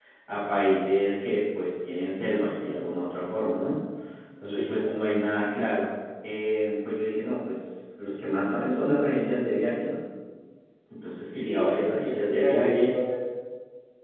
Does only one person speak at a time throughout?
No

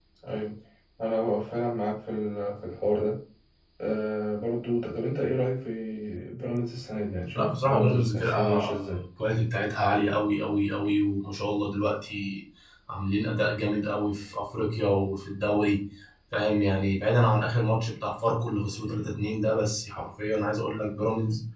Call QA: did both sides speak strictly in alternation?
No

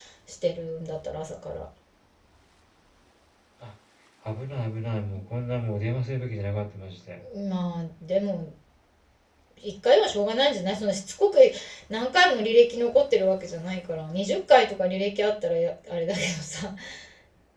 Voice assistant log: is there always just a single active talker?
Yes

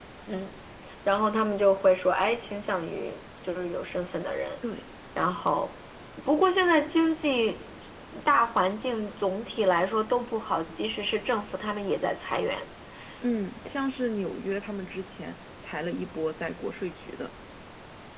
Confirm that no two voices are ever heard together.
Yes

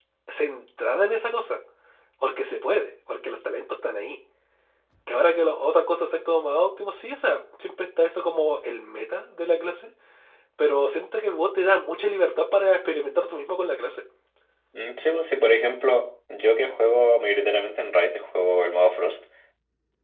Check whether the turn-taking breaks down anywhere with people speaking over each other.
No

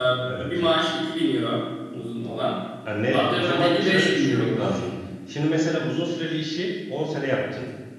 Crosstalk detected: Yes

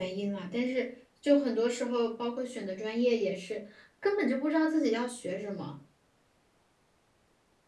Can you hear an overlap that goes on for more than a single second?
No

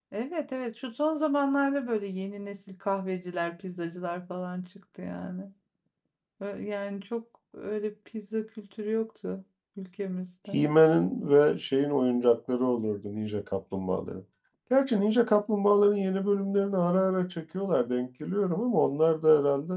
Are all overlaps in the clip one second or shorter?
Yes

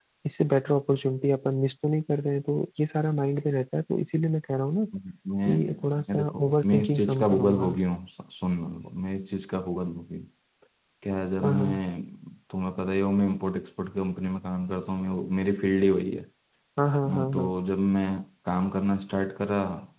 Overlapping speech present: Yes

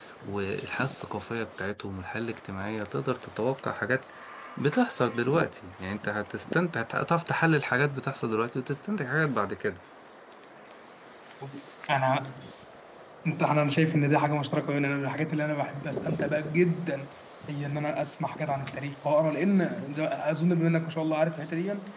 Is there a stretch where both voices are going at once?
No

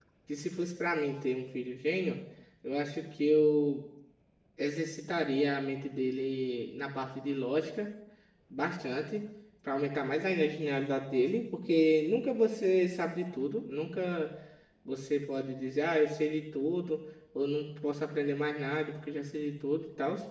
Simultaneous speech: No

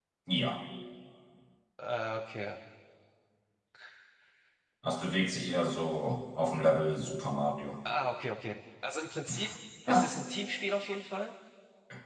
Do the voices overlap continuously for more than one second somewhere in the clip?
No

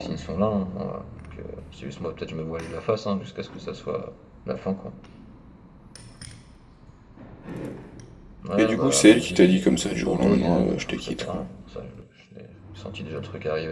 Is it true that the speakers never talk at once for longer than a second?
No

